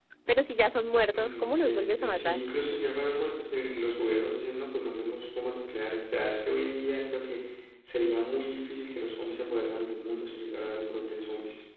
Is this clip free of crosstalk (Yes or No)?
No